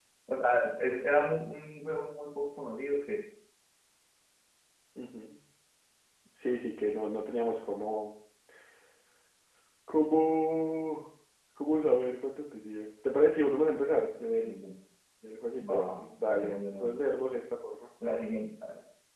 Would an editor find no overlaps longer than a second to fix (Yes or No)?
No